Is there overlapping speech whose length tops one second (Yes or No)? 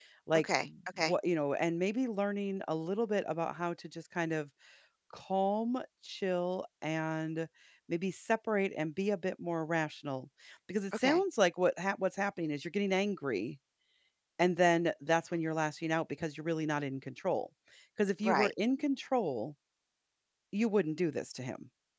No